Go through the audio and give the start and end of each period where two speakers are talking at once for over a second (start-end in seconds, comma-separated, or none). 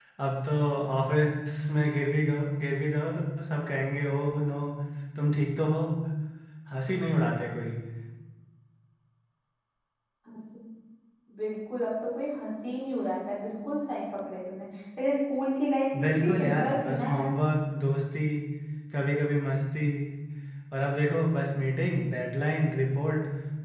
16.0-17.3